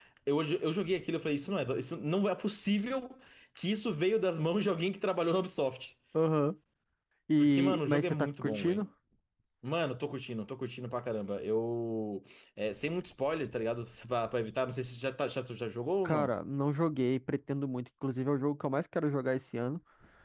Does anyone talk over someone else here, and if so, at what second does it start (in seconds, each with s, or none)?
7.4 s